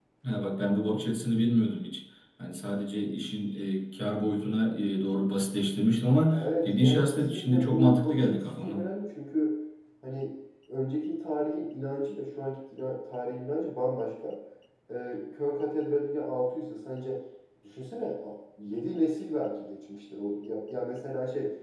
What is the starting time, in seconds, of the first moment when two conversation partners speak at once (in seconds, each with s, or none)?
6.3 s